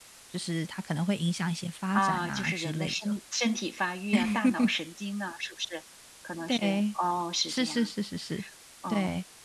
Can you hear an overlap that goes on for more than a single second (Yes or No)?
Yes